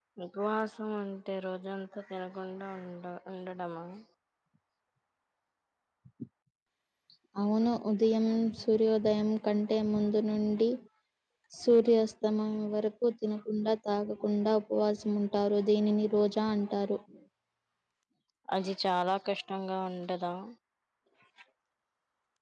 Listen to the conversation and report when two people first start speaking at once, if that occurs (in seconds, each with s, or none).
none